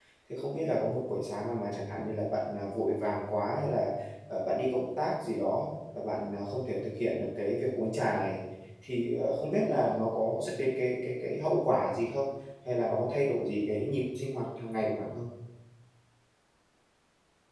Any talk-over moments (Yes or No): No